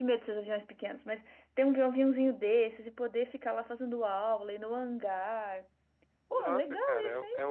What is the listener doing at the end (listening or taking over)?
taking over